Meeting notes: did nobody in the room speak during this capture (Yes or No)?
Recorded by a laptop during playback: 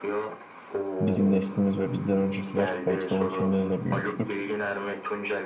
No